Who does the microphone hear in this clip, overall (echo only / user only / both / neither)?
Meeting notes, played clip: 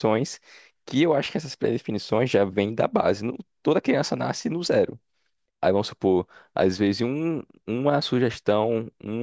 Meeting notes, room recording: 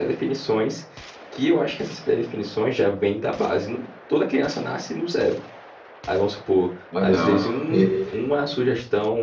both